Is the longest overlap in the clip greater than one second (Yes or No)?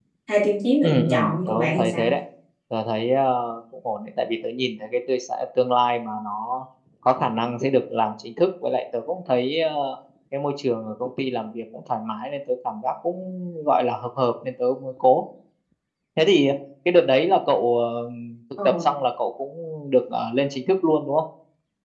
Yes